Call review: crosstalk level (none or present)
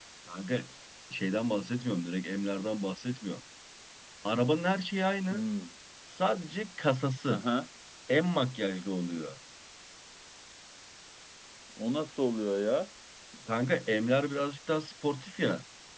none